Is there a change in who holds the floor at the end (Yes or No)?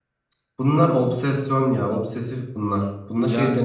No